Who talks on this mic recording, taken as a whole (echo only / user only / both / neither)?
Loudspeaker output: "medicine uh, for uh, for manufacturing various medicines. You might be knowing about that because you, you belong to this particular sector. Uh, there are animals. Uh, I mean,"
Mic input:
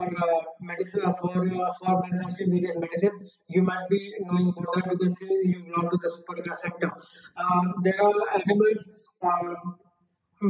echo only